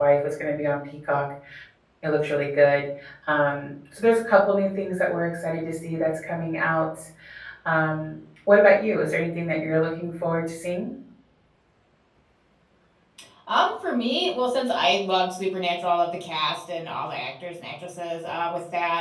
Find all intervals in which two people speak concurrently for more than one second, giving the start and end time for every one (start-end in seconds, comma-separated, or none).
none